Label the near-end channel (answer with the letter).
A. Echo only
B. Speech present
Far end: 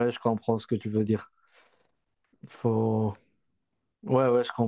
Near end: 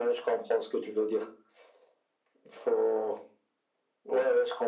A